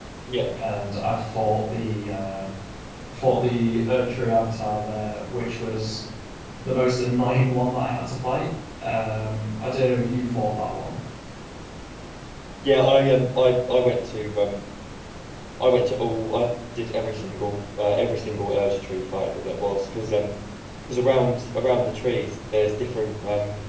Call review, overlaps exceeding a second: none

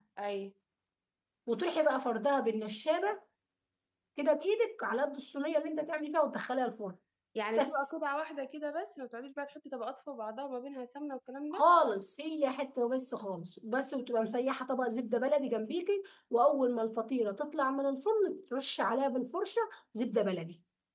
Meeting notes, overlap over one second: none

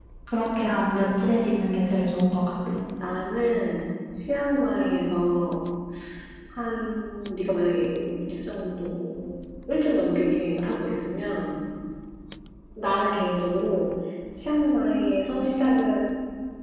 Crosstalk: none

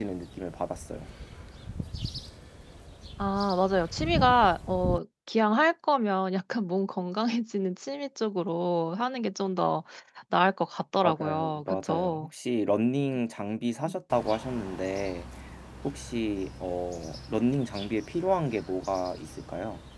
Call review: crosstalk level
present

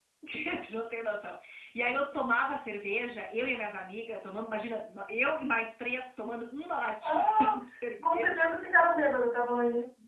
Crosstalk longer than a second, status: none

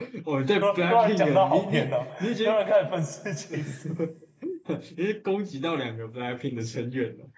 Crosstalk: present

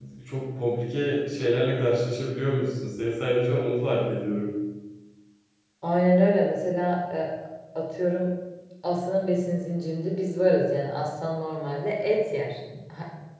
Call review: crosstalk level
none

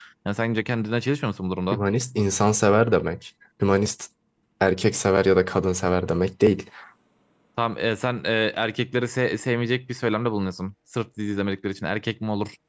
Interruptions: none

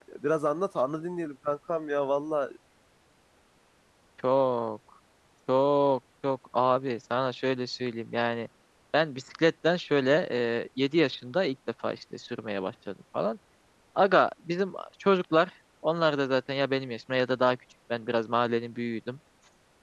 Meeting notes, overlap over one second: none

